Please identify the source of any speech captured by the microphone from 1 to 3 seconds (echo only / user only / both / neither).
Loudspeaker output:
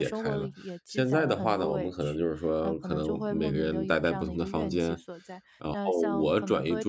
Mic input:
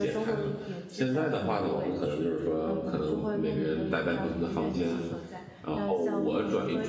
echo only